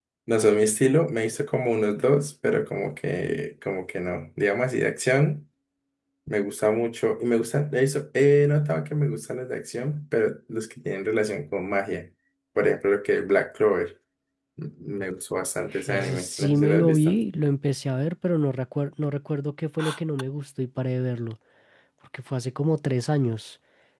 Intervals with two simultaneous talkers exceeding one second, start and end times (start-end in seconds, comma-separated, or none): 15.9-17.1